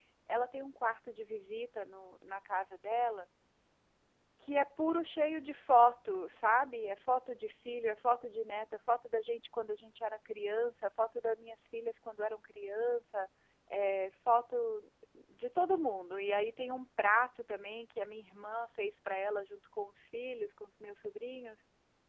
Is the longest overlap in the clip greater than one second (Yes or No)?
No